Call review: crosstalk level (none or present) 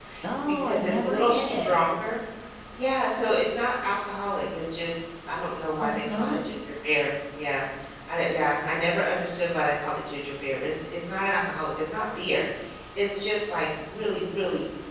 present